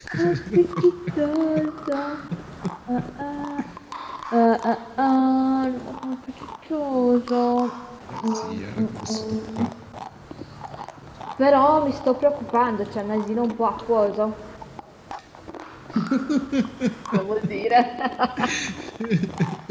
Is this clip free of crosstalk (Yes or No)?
No